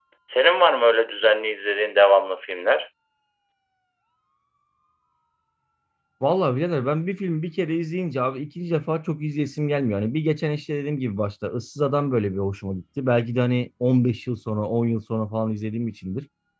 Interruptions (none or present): none